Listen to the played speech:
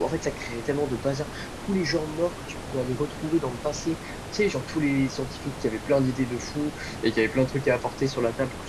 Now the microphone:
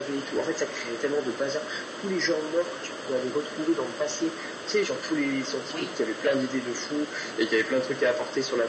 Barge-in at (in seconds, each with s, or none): 5.7 s